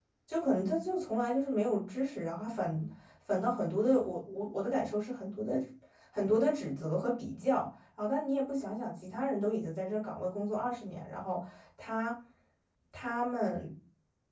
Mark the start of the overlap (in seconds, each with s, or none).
none